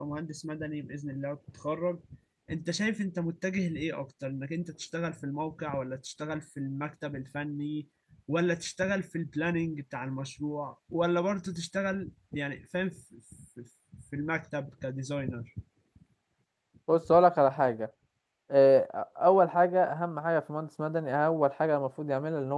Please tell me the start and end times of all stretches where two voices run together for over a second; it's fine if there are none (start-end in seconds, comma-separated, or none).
none